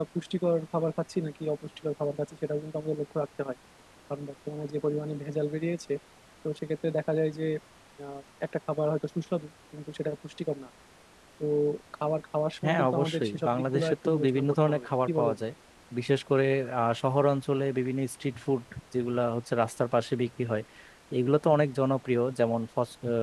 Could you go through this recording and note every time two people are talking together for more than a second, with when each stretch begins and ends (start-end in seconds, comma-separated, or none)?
12.6-15.4